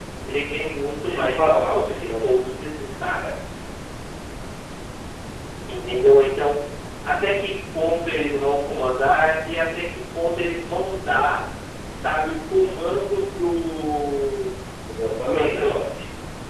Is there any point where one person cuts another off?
Yes, from 1.1 s

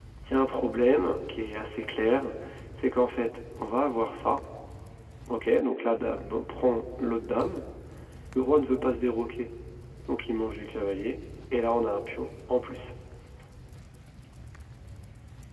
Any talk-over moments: No

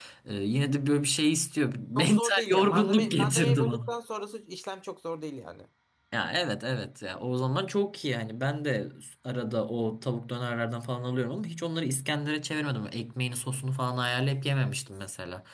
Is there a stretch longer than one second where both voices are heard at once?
Yes, from 1.9 s

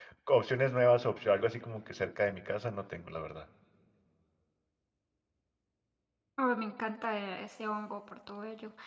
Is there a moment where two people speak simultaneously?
No

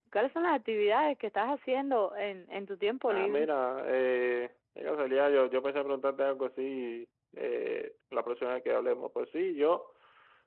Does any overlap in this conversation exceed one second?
No

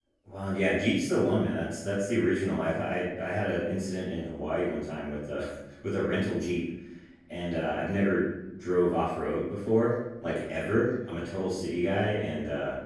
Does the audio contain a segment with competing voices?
No

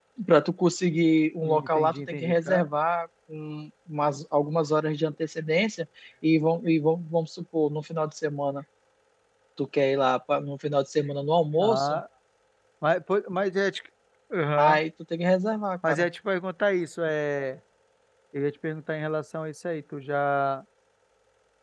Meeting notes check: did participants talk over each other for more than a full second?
Yes, from 1.5 s

